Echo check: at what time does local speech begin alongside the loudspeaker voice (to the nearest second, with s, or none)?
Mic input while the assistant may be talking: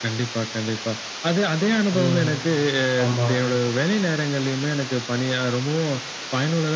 2 s